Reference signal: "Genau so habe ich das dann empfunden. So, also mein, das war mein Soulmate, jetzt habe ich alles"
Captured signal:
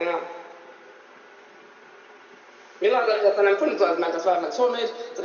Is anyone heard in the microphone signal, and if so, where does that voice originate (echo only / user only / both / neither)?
echo only